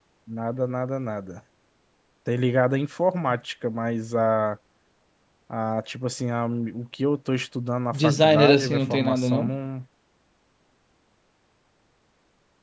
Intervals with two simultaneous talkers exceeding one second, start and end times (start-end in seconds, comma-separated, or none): 7.9-9.5